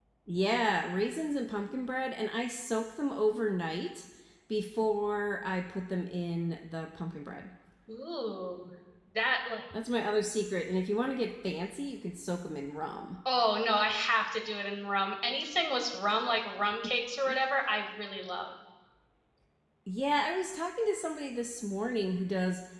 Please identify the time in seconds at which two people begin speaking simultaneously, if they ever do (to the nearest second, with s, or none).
none